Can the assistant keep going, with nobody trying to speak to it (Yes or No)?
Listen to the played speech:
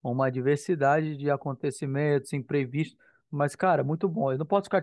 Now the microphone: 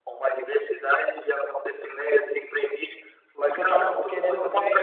No